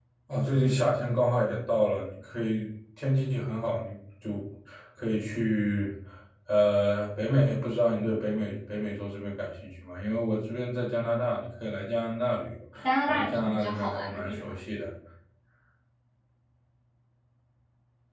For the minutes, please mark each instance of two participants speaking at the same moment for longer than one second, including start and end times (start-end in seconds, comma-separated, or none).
13.1-14.6